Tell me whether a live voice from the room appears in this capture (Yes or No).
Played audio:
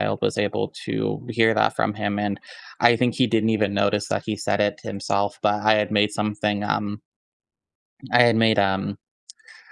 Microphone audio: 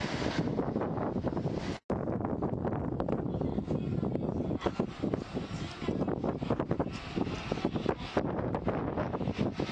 No